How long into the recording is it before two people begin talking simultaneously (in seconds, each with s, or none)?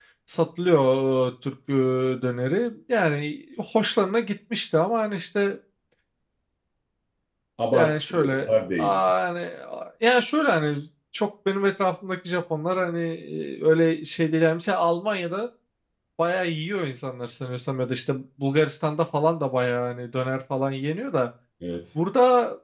7.7 s